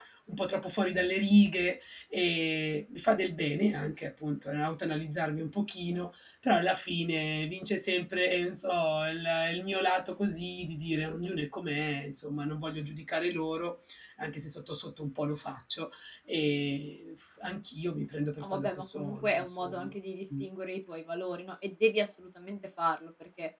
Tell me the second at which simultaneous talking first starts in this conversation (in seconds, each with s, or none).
18.4 s